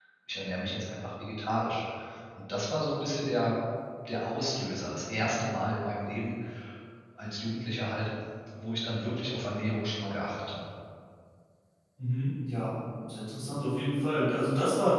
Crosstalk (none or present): none